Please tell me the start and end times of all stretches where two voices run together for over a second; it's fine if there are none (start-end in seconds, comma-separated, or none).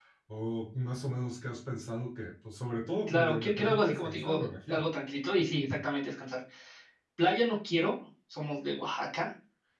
3.1-4.8